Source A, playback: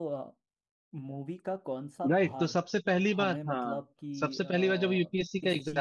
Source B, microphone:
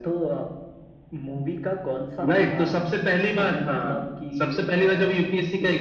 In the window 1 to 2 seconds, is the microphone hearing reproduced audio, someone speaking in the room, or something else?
echo only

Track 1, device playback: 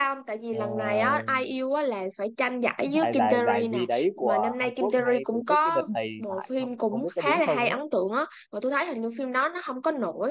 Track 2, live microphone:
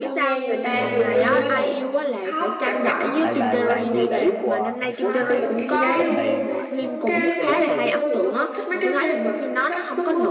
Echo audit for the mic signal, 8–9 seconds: both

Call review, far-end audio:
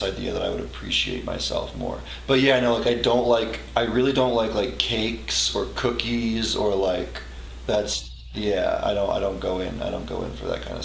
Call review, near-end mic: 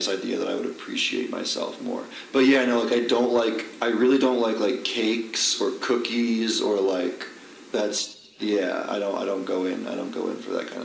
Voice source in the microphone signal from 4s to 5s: echo only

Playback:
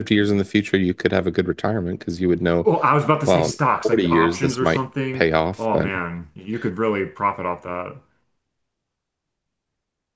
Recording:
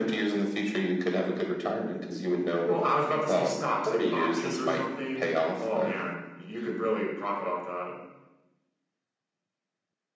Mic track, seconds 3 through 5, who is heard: echo only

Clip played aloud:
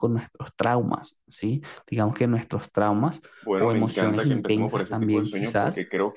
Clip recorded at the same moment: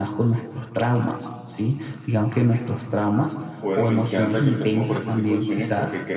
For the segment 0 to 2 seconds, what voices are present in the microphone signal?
echo only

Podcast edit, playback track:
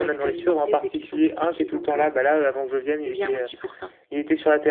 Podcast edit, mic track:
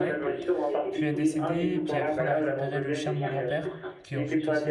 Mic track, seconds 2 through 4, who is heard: both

